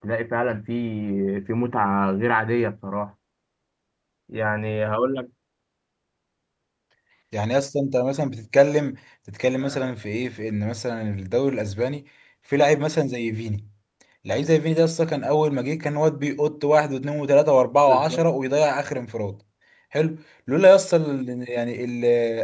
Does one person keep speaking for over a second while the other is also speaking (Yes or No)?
No